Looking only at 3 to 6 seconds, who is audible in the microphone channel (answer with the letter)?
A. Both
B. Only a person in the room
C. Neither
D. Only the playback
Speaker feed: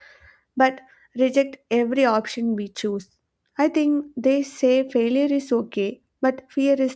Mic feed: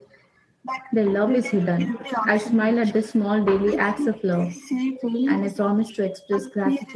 A